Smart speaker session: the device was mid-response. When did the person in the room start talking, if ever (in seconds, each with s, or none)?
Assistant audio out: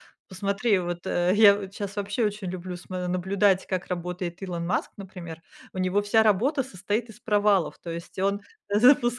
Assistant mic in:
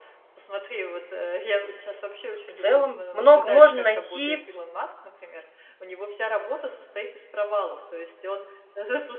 2.5 s